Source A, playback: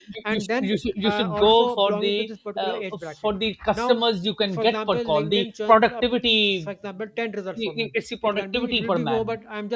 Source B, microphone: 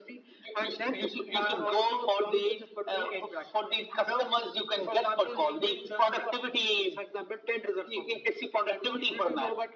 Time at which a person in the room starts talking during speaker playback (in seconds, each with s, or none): none